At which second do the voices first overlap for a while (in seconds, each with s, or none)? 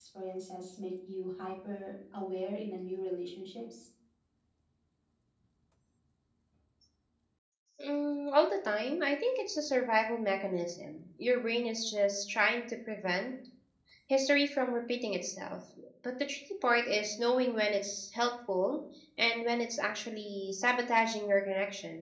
none